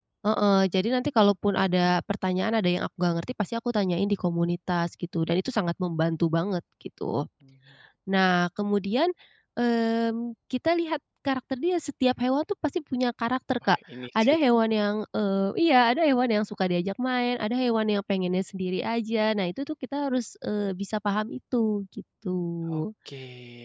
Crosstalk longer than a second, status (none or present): none